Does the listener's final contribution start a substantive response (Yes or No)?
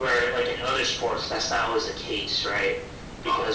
No